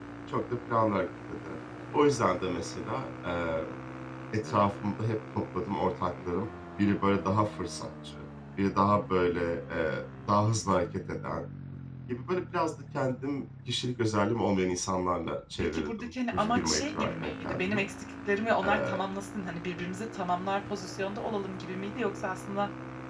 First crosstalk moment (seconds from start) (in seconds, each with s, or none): 15.7 s